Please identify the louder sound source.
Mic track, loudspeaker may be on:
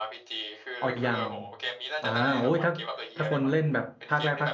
user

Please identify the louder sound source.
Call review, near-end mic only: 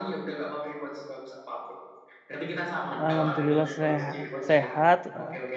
user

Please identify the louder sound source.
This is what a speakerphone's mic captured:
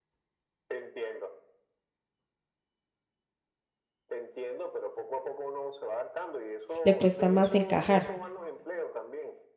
user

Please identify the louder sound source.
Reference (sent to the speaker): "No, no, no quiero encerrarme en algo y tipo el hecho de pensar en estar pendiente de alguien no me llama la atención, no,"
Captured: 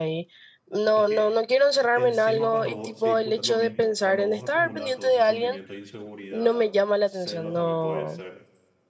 echo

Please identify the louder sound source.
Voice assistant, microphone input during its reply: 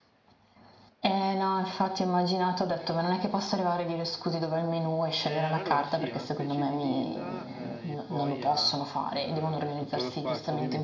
echo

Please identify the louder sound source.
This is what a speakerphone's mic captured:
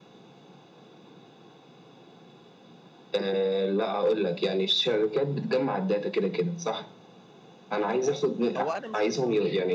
echo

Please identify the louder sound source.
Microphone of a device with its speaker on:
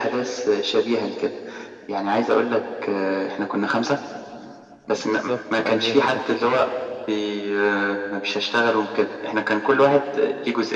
echo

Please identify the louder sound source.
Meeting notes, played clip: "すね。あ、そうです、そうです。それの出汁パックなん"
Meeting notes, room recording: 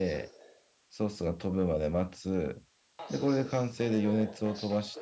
user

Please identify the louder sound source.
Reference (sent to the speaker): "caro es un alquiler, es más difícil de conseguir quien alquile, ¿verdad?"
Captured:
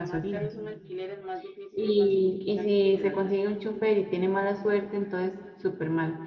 user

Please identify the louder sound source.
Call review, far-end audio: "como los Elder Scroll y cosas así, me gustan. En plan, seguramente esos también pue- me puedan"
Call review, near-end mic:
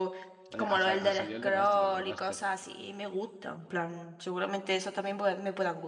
echo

